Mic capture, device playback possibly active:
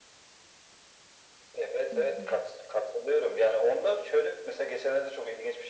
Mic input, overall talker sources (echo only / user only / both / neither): both